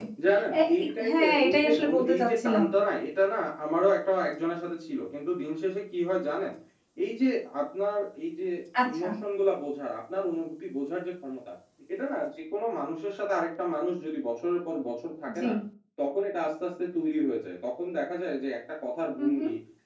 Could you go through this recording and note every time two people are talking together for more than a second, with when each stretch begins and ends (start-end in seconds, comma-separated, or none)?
0.5-2.7